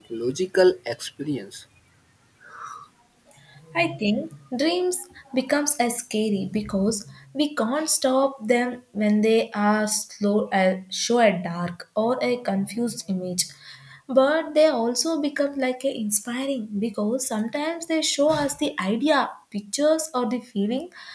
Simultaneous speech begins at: none

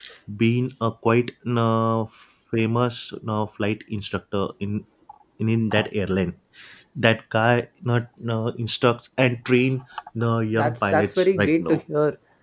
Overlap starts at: 10.6 s

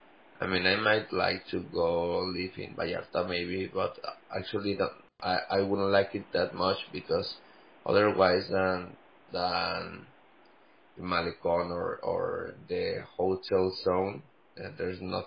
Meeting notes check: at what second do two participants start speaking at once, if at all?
none

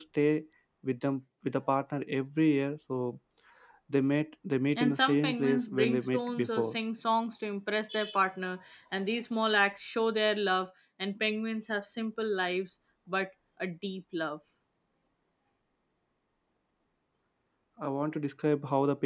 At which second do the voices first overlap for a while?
4.7 s

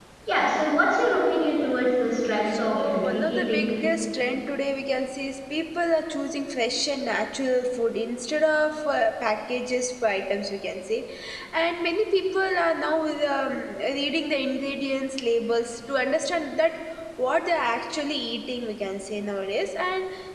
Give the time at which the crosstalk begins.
2.5 s

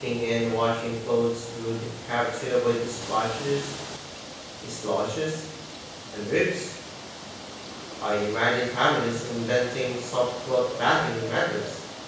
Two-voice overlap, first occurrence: none

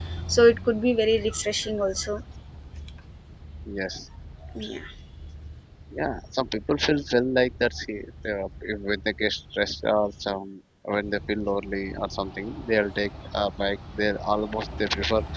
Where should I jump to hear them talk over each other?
none

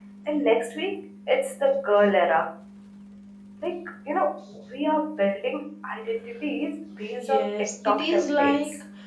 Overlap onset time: 7.2 s

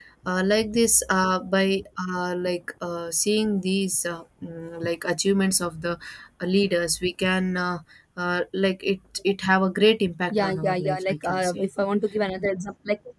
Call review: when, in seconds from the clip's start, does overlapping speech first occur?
10.3 s

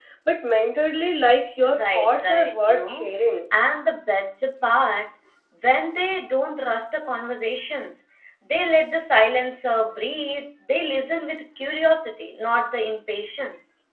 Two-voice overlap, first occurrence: 1.6 s

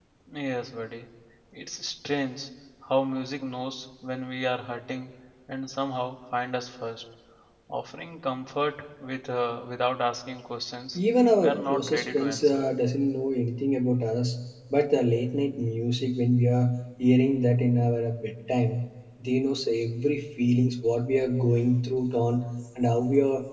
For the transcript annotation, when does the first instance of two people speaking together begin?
11.4 s

